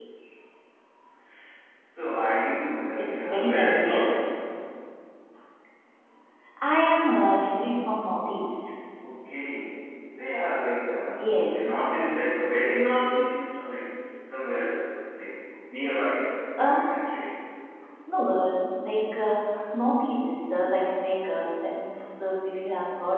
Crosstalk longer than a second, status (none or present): present